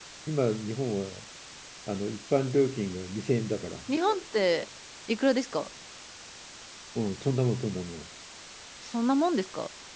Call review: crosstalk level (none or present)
none